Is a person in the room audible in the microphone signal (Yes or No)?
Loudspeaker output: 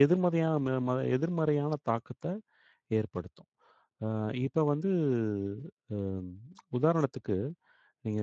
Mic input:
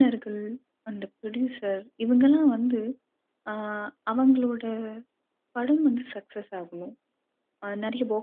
Yes